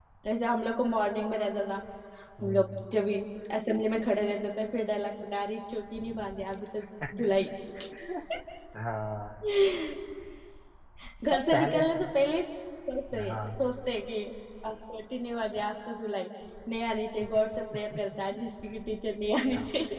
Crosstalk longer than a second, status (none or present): none